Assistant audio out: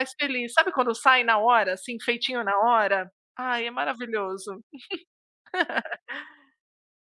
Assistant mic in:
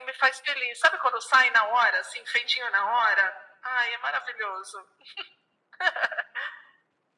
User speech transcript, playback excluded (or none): none